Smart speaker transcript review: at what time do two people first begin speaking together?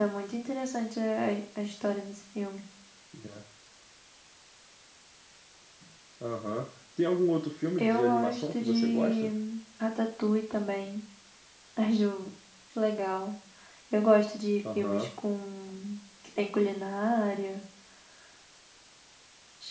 7.8 s

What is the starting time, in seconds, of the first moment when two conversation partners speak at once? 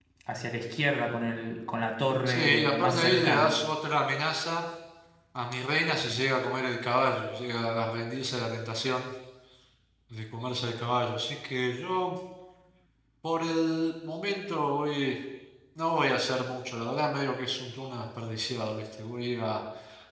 2.3 s

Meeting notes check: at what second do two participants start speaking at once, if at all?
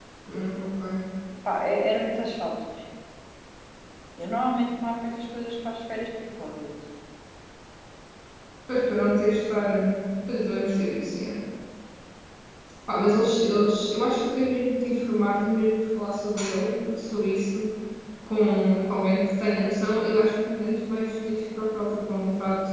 none

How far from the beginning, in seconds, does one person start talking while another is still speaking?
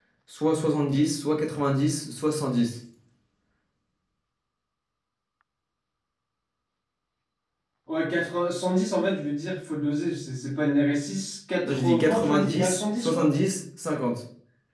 11.7 s

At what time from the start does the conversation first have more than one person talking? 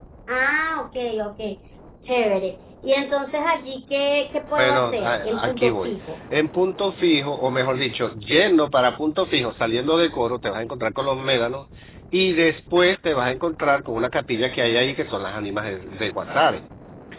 4.6 s

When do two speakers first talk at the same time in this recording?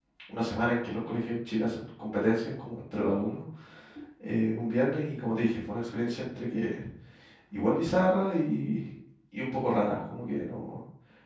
none

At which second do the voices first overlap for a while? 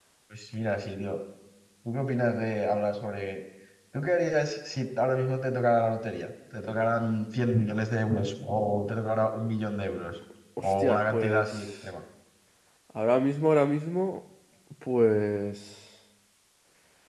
10.6 s

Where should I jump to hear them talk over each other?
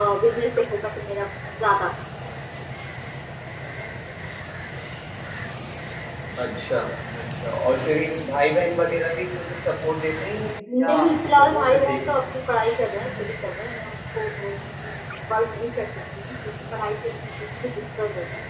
10.7 s

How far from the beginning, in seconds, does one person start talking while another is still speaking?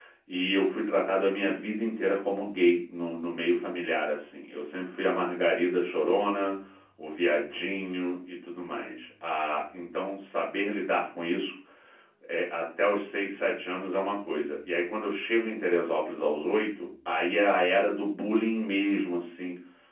none

